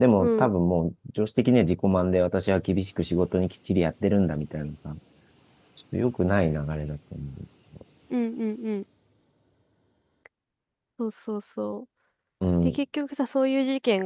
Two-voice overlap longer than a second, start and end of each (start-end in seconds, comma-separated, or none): none